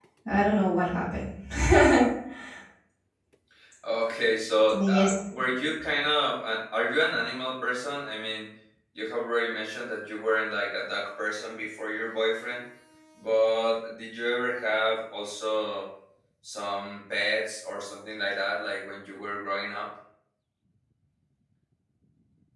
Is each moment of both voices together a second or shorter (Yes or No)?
Yes